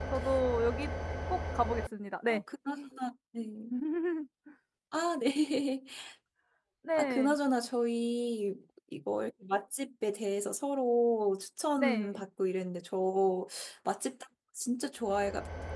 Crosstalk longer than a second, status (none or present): none